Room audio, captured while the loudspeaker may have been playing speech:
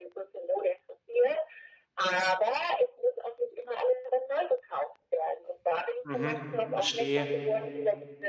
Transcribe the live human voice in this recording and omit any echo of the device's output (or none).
Mhm. Verstehe.